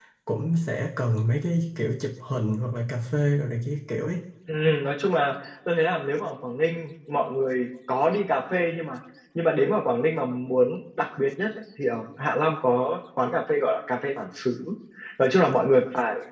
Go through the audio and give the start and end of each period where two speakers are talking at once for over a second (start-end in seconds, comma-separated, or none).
none